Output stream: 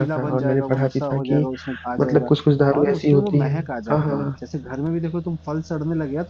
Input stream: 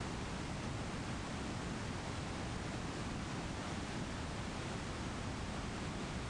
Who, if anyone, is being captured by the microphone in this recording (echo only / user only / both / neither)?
neither